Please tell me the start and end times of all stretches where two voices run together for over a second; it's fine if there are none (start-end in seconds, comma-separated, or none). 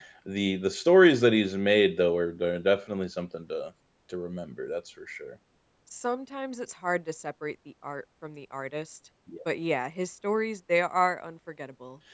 none